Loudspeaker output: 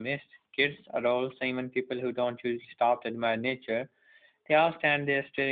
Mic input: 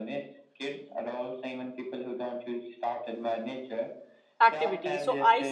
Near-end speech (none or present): present